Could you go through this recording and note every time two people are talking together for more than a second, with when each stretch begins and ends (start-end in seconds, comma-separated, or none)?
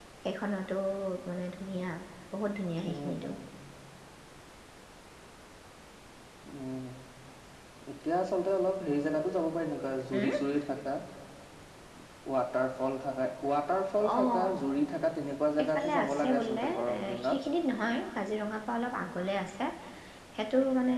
15.6-17.2